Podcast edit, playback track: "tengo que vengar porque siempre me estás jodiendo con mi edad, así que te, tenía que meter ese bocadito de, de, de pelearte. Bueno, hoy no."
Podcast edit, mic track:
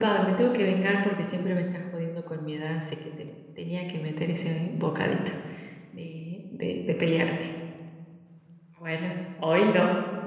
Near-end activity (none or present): none